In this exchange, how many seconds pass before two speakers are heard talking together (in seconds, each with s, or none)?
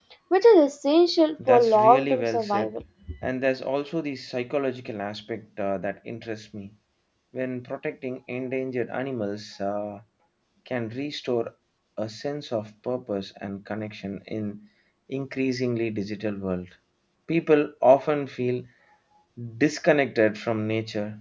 1.4 s